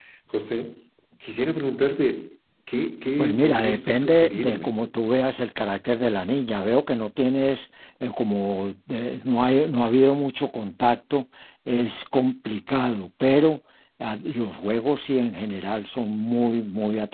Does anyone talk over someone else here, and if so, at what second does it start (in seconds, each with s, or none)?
3.2 s